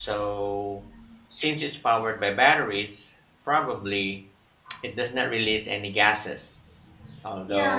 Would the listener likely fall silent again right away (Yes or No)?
No